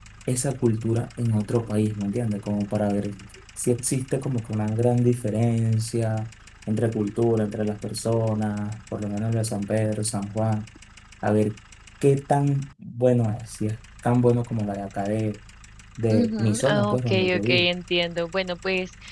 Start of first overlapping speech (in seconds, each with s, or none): 16.1 s